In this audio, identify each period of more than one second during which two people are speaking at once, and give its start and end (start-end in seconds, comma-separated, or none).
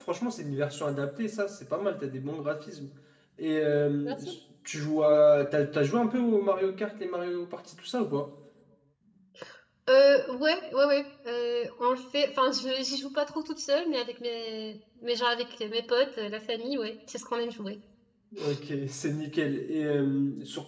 none